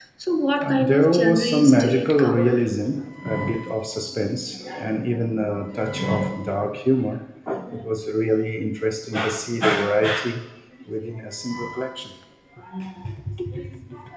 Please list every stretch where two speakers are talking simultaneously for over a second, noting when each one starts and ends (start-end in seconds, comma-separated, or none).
0.6-2.7